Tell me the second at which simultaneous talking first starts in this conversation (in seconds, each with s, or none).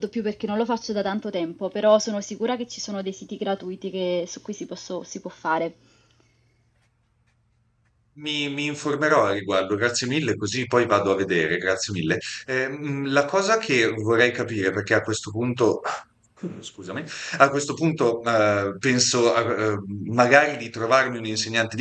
none